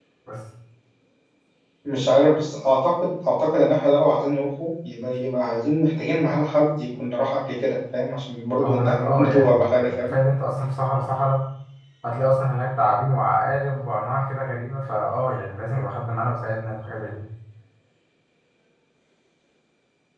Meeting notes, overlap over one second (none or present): present